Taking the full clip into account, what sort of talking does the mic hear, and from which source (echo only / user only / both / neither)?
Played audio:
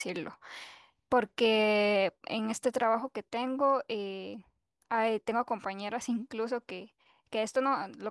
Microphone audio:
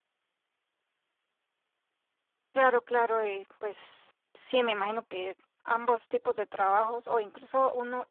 user only